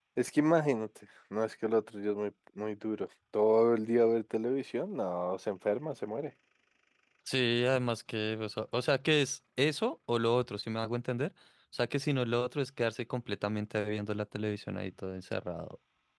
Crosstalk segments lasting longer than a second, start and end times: none

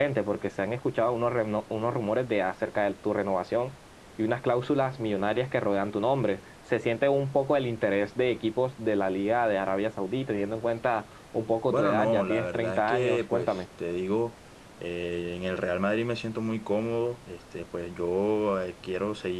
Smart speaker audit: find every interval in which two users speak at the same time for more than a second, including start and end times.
11.7-13.6

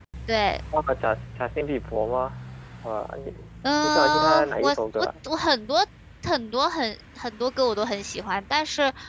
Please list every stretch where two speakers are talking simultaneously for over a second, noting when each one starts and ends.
3.8-5.1

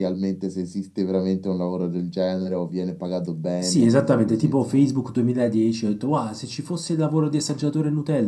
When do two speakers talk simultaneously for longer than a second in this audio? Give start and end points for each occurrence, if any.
3.6-4.9

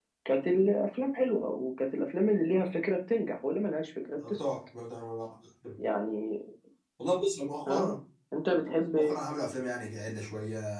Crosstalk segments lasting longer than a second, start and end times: none

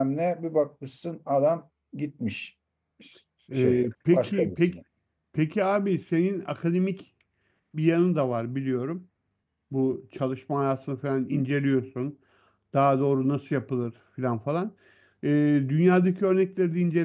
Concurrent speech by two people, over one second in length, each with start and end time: 3.5-4.8

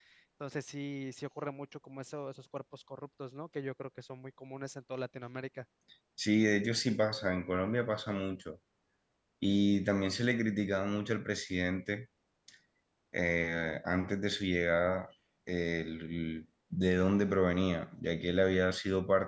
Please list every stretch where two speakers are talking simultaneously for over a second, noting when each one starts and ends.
none

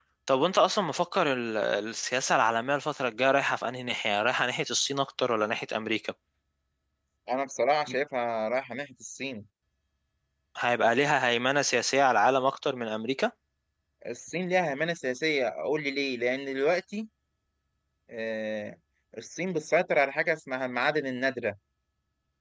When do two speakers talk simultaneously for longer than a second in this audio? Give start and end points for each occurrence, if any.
none

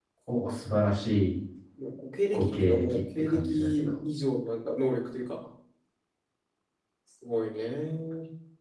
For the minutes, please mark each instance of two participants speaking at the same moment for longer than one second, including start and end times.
2.3-3.9

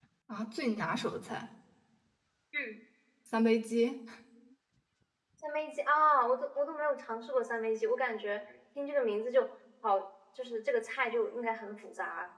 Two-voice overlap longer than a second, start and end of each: none

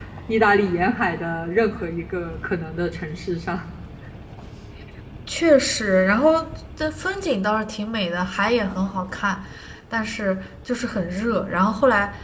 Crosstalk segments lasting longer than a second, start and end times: none

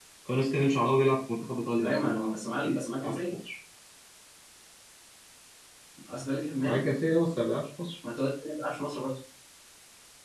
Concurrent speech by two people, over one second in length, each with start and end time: 1.8-3.2

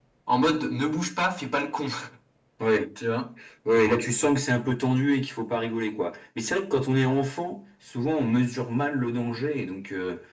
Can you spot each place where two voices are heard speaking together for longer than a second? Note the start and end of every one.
none

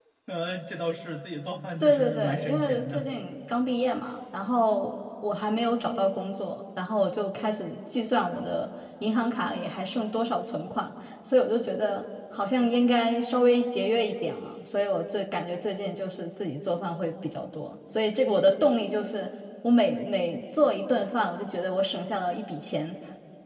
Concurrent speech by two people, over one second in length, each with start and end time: 1.8-3.1

